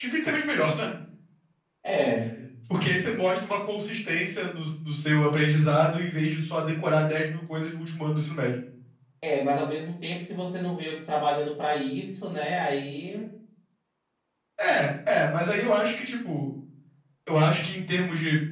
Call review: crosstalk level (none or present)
none